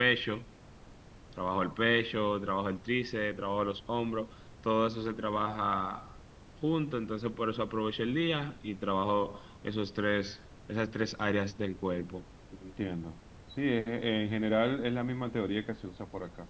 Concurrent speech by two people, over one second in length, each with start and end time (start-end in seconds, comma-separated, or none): none